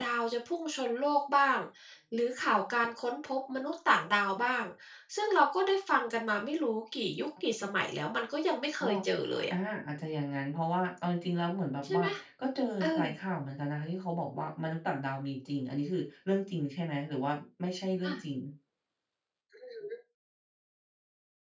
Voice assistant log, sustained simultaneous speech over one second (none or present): none